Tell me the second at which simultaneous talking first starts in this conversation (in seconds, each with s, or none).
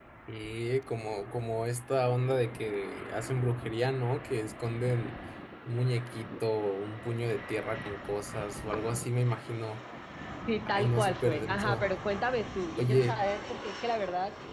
10.7 s